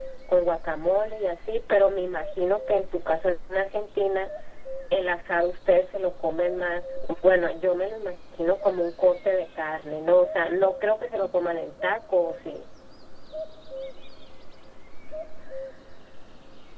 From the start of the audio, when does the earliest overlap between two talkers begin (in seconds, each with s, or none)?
none